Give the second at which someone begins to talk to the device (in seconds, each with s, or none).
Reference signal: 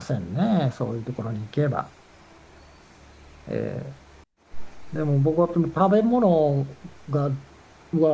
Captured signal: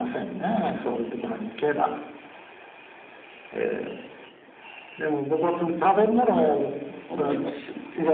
7.1 s